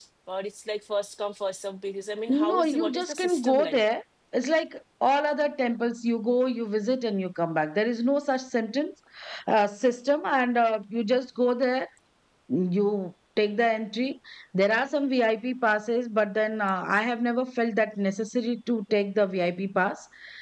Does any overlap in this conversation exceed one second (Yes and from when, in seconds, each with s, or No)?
Yes, from 2.3 s